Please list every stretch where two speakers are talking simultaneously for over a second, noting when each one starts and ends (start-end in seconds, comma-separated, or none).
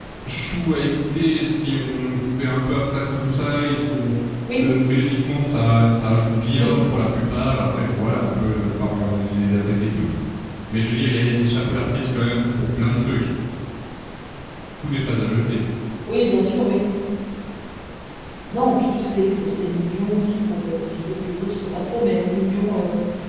none